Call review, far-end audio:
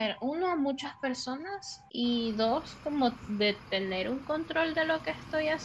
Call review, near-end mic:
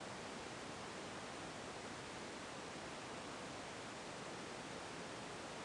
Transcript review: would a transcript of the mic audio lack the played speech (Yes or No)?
Yes